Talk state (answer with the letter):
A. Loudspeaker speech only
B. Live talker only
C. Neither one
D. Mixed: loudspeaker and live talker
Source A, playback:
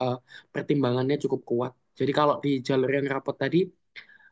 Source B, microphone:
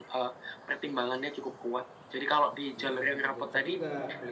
D